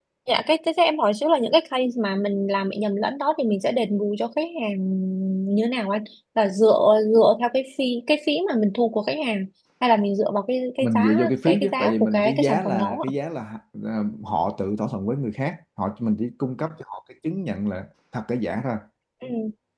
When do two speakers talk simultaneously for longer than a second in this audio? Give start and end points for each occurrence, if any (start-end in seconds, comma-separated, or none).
10.8-13.1